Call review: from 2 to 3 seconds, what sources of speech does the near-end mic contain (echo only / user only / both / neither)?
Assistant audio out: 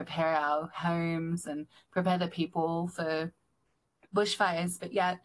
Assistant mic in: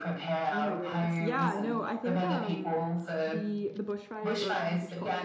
both